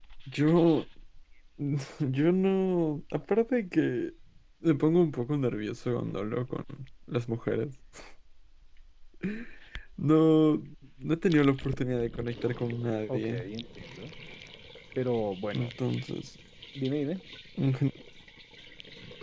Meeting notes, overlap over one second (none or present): none